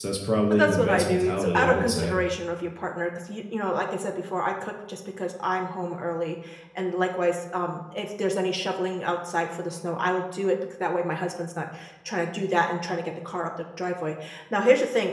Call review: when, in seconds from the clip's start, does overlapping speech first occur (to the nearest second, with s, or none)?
1 s